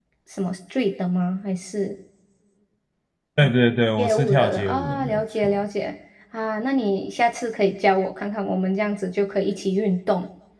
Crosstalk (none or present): present